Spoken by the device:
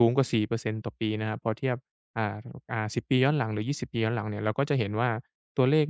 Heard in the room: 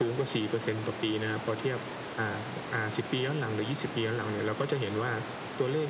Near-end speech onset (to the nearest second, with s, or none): none